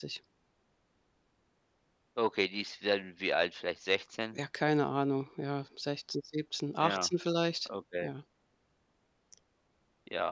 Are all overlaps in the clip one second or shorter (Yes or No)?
Yes